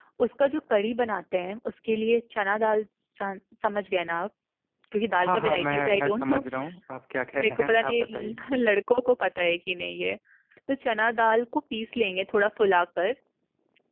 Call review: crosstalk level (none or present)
present